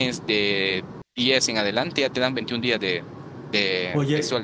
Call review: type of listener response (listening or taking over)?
taking over